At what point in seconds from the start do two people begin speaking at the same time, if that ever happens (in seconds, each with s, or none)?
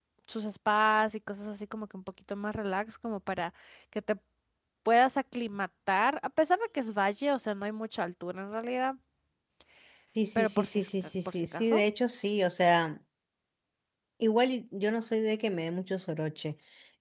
10.3 s